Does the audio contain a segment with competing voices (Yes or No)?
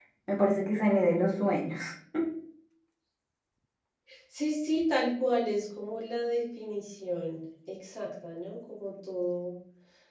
No